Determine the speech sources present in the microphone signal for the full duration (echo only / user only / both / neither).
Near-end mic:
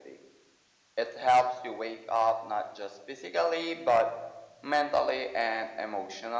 echo only